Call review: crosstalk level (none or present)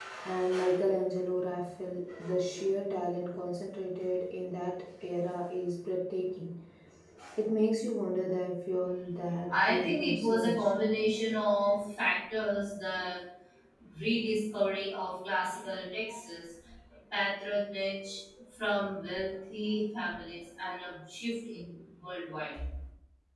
present